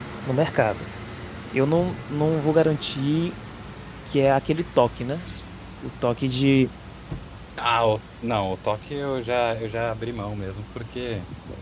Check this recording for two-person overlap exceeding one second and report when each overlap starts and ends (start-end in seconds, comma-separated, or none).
none